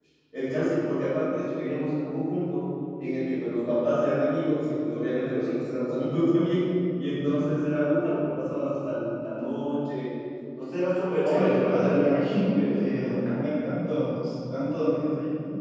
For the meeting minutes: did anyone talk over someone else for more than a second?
Yes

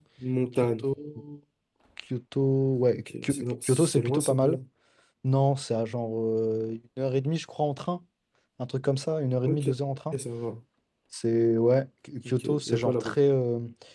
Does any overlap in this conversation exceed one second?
Yes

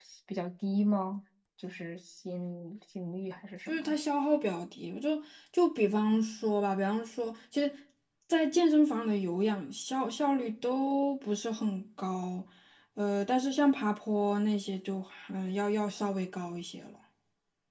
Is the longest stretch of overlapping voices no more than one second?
Yes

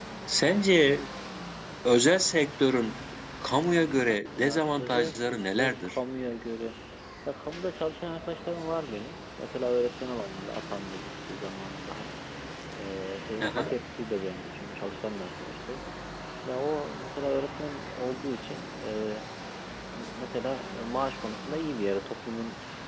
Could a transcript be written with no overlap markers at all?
No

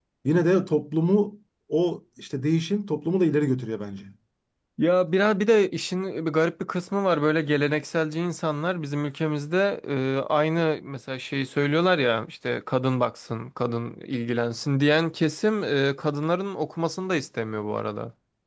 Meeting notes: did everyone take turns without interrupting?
Yes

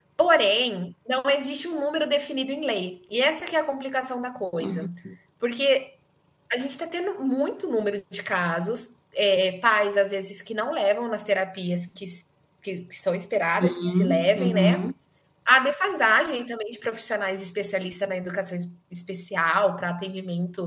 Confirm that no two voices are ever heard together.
No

